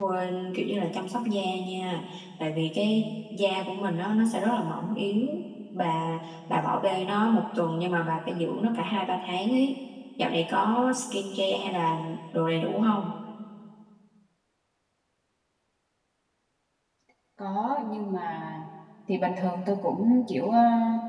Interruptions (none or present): none